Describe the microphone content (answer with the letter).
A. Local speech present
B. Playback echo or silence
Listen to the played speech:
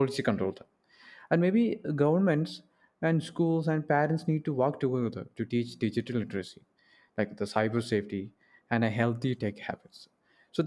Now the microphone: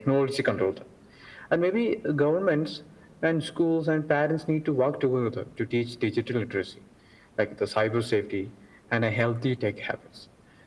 B